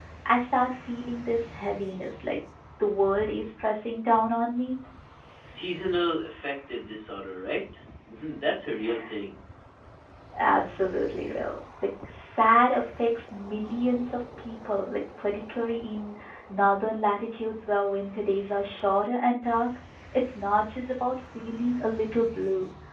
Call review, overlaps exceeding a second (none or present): none